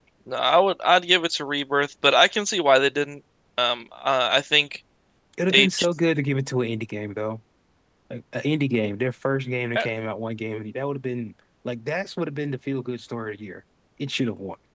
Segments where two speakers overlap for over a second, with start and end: none

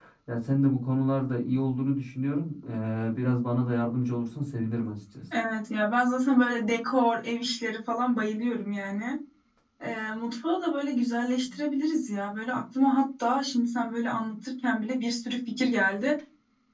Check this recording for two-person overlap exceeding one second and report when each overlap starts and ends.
none

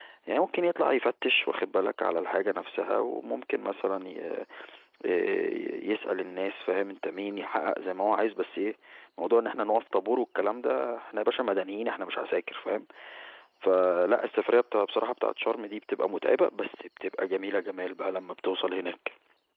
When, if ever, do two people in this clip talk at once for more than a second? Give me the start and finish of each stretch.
none

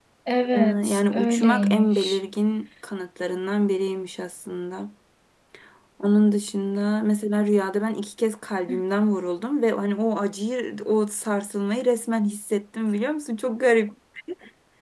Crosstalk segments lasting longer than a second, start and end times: 0.5-2.2

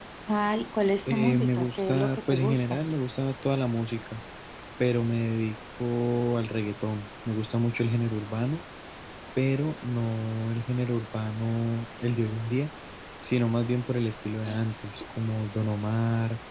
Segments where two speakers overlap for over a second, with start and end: 1.1-2.8

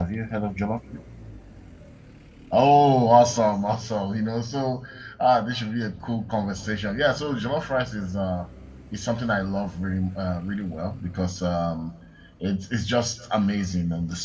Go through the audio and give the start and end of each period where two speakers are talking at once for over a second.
none

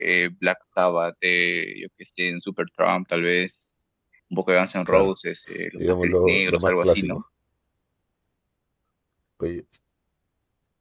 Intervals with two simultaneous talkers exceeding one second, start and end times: 5.8-7.2

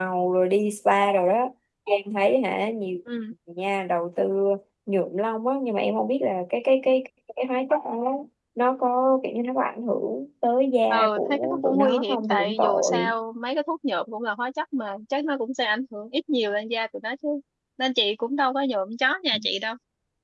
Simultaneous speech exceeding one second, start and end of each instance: 10.9-13.1

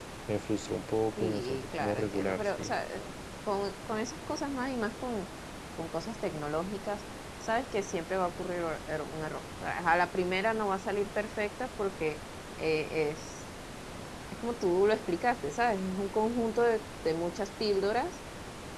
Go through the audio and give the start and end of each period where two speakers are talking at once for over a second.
1.2-2.8

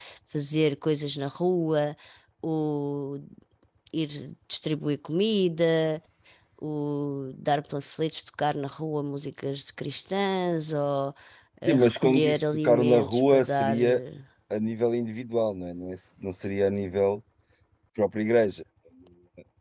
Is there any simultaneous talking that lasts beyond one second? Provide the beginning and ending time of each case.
11.7-14.0

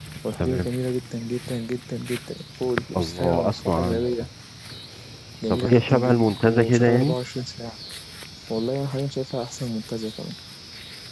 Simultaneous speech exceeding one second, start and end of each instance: 3.0-4.3, 5.5-7.2

